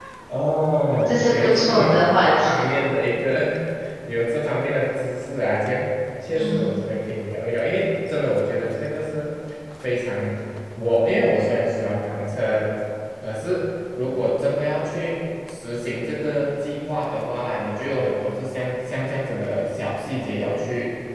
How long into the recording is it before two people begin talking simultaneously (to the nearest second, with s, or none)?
1 s